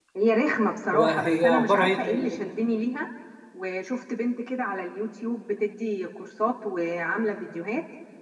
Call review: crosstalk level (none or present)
present